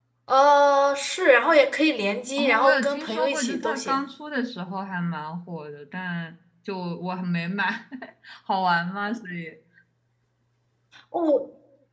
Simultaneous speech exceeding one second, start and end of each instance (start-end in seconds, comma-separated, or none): 2.4-4.0